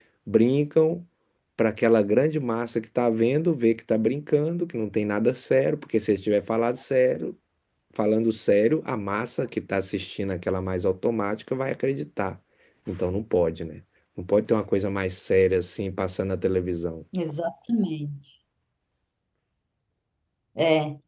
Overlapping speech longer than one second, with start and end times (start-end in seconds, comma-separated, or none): none